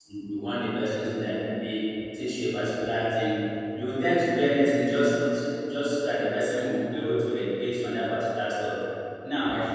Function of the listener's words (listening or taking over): listening